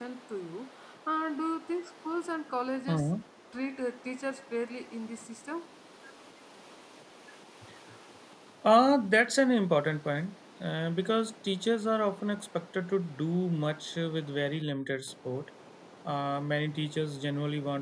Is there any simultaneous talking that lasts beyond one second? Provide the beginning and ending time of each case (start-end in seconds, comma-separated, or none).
none